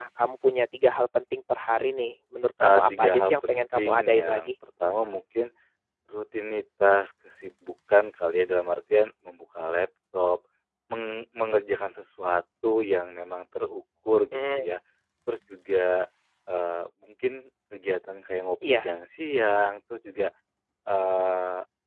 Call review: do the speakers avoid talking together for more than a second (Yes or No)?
No